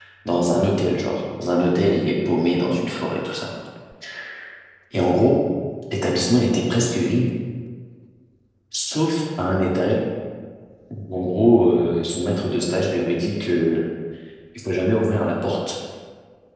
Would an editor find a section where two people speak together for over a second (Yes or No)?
No